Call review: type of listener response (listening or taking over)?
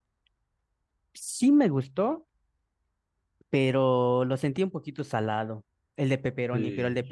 taking over